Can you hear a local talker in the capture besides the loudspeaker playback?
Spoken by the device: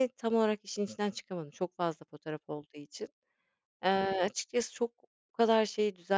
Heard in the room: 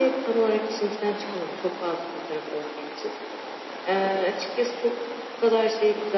No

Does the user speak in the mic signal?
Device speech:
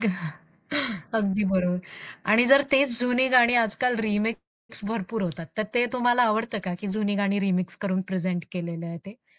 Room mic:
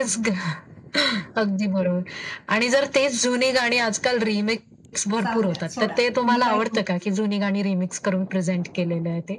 Yes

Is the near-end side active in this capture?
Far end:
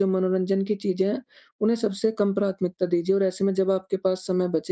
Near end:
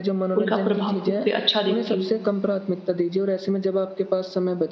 Yes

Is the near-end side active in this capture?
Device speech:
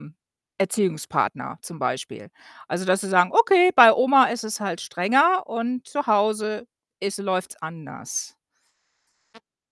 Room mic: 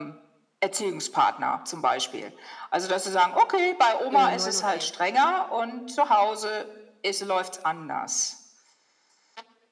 Yes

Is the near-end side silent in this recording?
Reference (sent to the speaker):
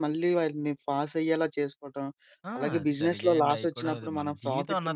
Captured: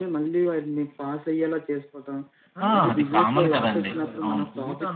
No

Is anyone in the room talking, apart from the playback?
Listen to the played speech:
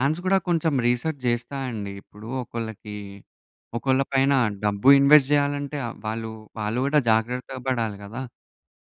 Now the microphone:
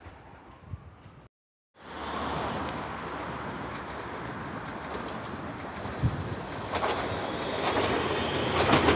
No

